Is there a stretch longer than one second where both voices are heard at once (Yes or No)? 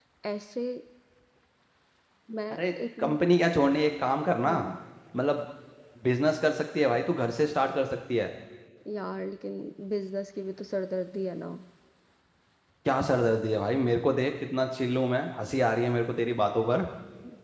No